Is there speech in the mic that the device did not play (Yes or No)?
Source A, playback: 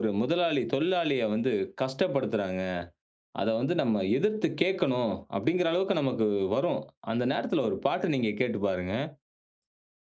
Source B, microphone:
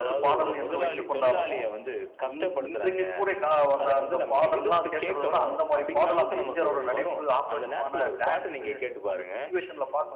Yes